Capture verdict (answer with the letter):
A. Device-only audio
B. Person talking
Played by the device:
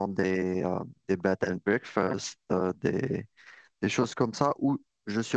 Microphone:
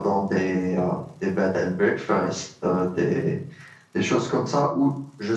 A